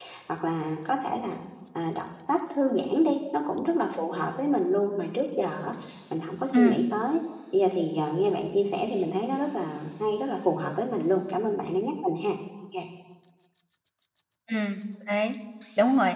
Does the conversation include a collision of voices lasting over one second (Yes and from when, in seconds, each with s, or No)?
No